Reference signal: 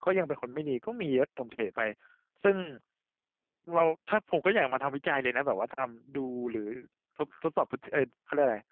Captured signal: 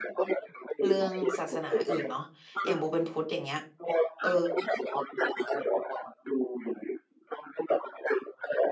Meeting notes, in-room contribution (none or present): present